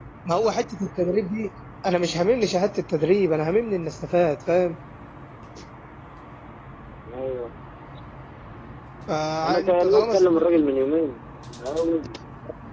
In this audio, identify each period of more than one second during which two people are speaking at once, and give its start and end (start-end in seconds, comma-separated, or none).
9.4-10.6